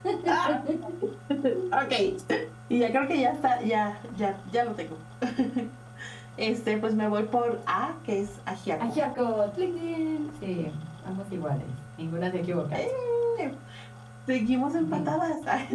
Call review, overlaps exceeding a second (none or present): none